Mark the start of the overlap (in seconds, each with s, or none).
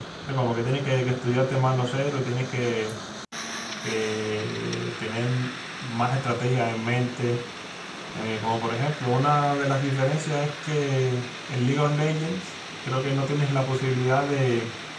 none